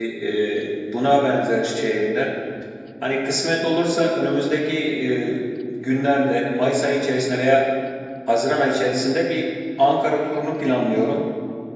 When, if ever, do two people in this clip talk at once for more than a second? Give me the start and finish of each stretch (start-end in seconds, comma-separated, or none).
none